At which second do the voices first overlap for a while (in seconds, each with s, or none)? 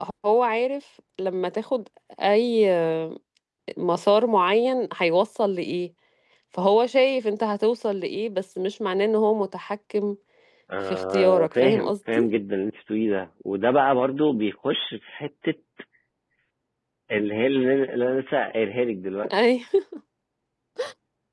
10.9 s